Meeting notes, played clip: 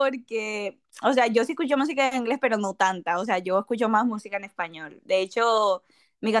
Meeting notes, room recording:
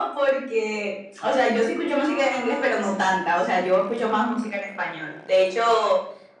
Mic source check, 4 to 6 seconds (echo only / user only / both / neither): echo only